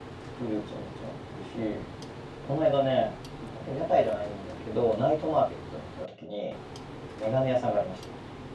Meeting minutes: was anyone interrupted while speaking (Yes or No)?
No